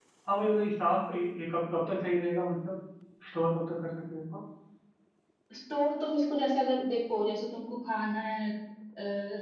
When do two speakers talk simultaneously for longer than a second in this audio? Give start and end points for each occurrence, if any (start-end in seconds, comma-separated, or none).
none